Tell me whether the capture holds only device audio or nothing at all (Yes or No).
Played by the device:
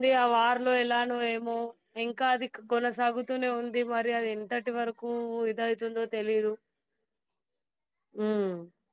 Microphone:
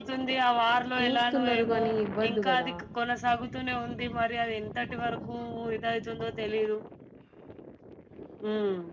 No